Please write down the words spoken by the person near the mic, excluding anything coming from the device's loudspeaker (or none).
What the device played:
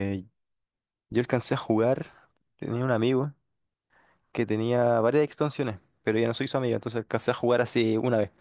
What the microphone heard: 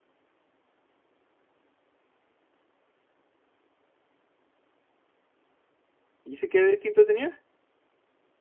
¿y ese qué distinto tenía?